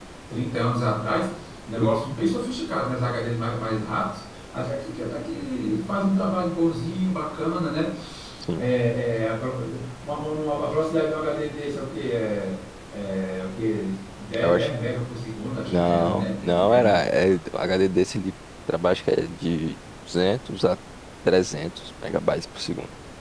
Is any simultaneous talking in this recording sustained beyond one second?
Yes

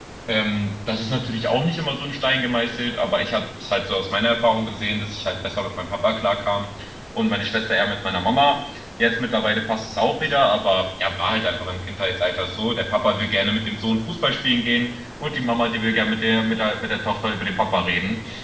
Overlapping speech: No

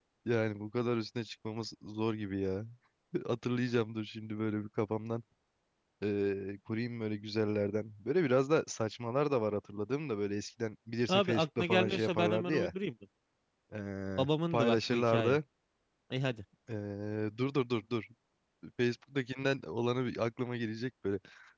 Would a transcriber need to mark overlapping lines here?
Yes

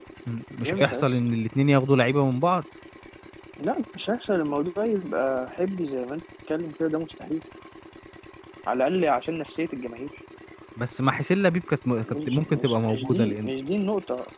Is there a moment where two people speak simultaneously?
Yes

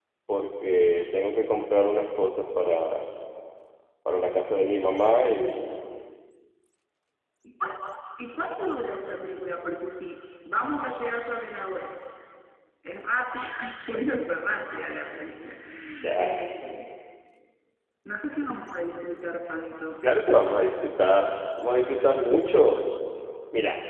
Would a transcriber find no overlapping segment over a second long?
Yes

